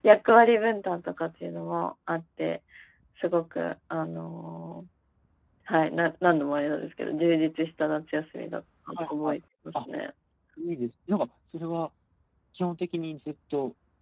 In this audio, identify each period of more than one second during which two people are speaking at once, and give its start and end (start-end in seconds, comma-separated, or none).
none